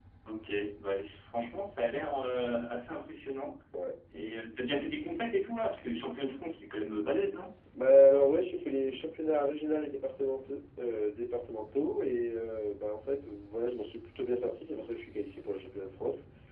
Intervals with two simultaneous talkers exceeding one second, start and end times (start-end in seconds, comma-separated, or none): none